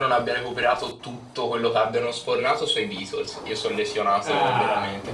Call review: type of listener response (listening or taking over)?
taking over